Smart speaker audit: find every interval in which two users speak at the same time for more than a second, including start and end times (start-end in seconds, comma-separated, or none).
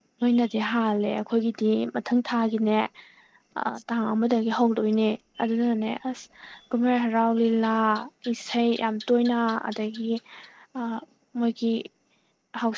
none